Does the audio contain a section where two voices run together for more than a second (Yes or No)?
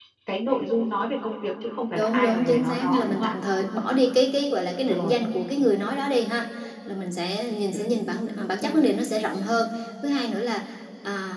Yes